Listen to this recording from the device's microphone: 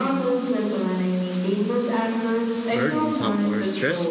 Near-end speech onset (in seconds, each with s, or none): 2.7 s